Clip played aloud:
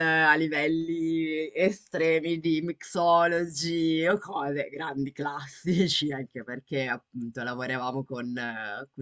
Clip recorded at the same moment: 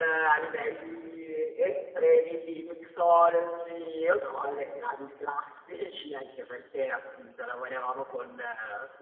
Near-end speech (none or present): none